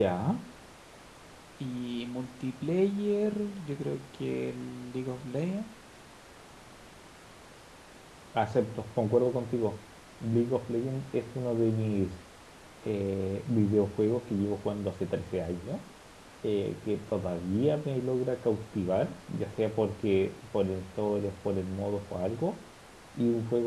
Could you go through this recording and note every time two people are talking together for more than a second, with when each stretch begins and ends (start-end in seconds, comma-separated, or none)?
none